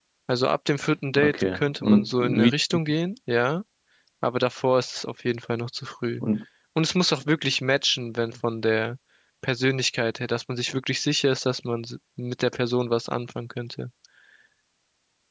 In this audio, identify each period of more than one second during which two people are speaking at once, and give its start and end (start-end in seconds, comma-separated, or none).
1.2-2.5